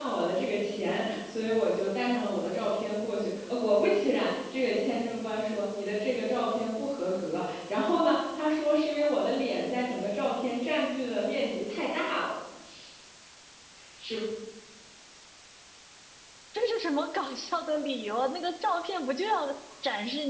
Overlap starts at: none

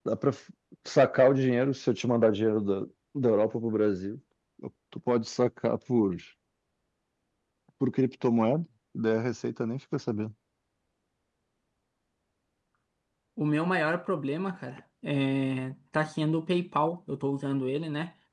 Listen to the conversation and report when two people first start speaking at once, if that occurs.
none

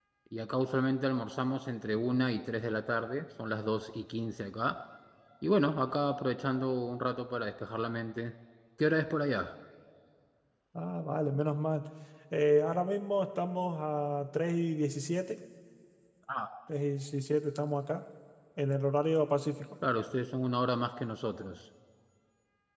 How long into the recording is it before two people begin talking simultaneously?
none

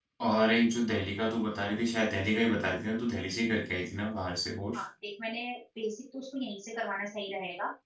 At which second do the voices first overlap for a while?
none

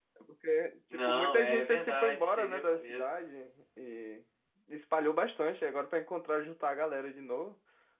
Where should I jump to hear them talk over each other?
0.9 s

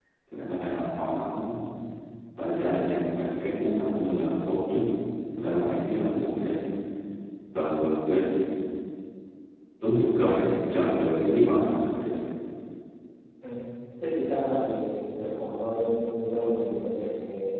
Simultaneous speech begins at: none

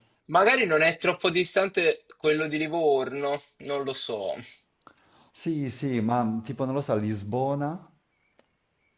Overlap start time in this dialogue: none

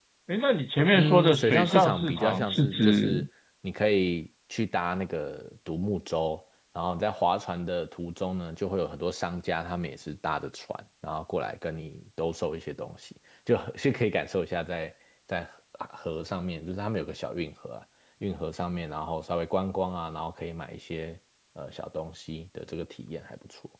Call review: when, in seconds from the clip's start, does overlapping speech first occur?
0.9 s

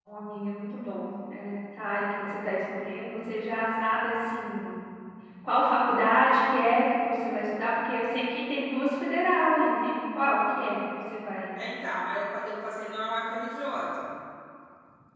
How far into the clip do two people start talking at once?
none

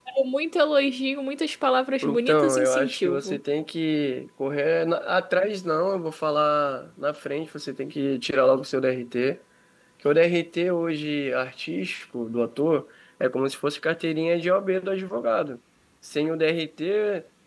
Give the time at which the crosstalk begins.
2.0 s

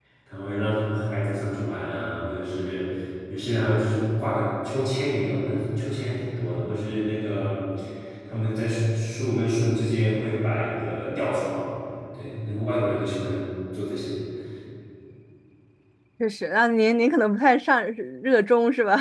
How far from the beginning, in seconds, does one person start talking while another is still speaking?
none

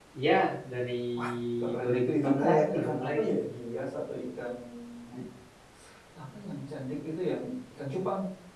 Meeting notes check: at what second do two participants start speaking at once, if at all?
1.8 s

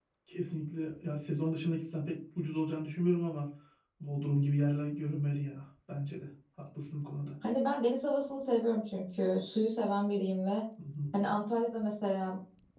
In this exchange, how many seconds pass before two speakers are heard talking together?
none

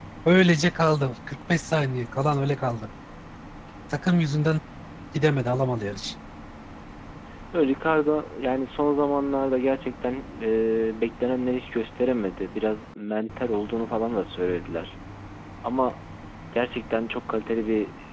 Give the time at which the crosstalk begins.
none

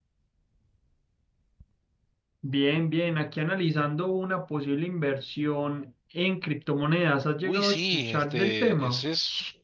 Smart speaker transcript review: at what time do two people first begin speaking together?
7.4 s

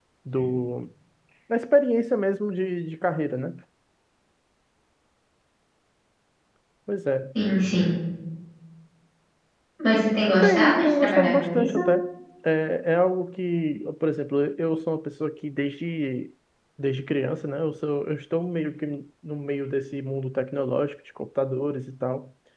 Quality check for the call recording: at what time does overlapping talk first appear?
10.4 s

